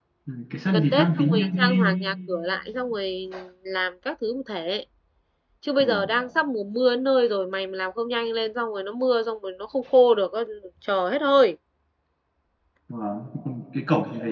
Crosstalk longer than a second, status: present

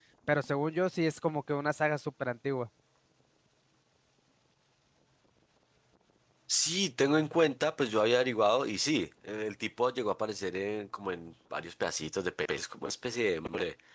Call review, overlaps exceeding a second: none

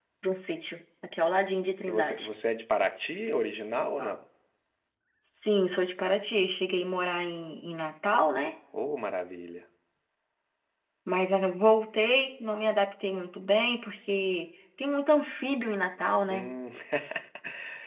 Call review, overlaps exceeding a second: none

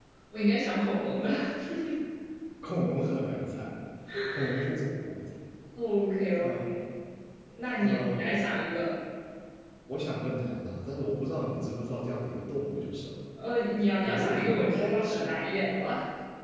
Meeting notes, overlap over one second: present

